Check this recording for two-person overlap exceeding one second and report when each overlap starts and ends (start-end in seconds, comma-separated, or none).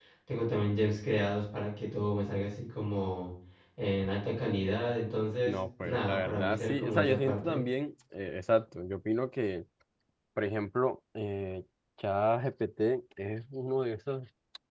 5.5-7.6